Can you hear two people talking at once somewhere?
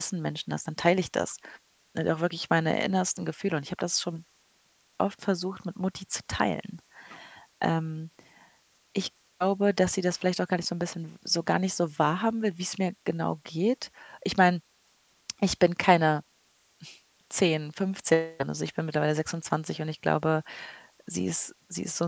No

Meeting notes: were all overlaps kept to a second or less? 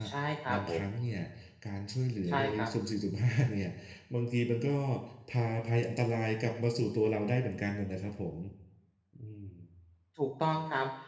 Yes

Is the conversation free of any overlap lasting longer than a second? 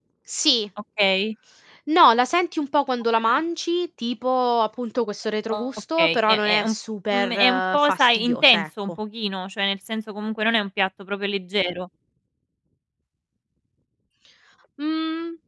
No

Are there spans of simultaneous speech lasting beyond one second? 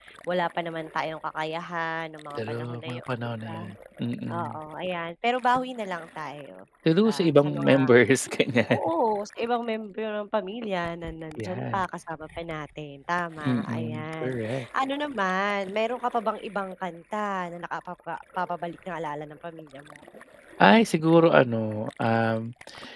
Yes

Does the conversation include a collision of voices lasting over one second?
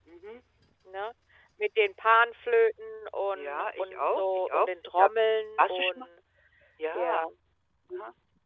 Yes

